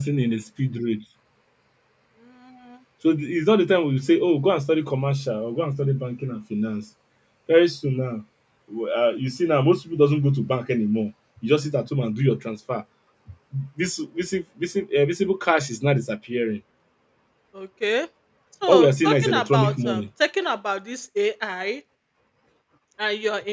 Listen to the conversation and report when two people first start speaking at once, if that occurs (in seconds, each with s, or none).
18.7 s